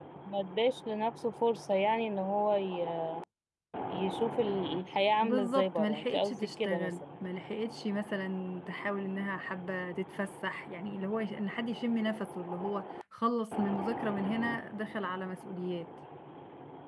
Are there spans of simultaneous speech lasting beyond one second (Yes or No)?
Yes